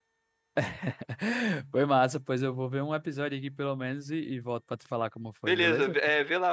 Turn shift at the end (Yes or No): Yes